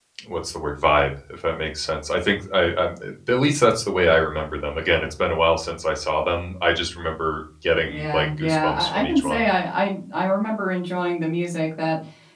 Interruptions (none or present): present